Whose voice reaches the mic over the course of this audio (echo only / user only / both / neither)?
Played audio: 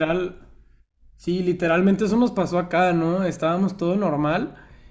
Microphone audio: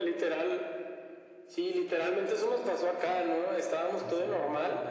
both